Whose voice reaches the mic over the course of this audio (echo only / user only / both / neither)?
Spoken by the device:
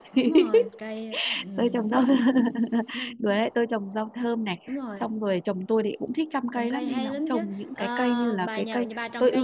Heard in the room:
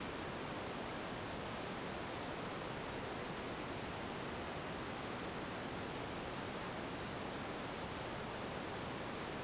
neither